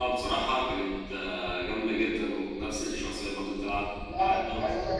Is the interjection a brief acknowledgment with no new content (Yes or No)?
No